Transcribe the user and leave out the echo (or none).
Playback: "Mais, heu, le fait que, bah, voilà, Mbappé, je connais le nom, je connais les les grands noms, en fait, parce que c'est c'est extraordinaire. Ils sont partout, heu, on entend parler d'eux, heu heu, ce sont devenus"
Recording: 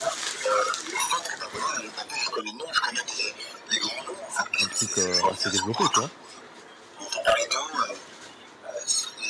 Un truc, heu, assez développé, tu vois?